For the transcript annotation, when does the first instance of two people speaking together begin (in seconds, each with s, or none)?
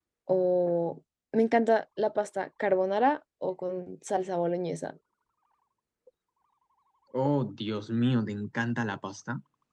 none